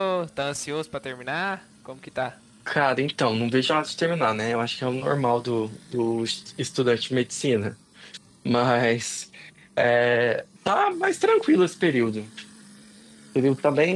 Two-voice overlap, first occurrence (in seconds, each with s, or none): none